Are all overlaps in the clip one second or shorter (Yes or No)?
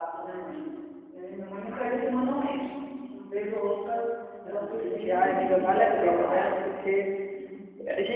No